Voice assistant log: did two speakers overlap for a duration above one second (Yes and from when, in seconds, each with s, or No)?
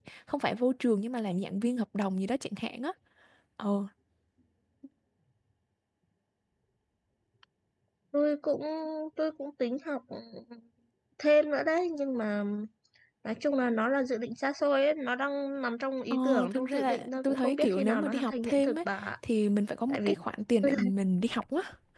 Yes, from 16.1 s